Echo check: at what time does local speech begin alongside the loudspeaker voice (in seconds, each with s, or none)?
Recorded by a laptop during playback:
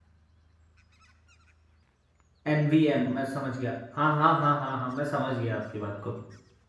2.5 s